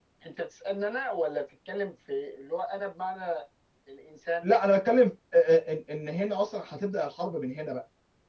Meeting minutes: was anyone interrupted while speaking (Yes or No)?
No